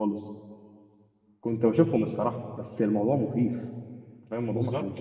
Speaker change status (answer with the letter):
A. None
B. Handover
B